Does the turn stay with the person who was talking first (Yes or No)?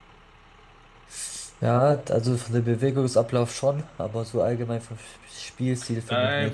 No